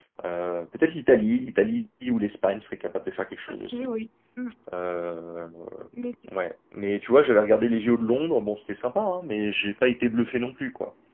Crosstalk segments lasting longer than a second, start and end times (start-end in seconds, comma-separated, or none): none